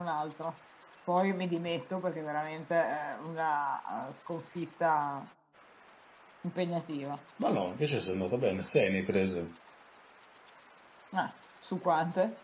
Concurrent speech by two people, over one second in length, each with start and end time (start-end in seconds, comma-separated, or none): none